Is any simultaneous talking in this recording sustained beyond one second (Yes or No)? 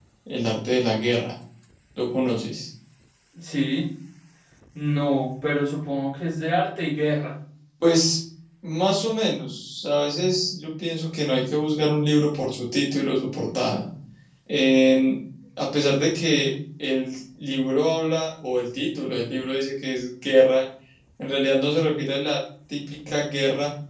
No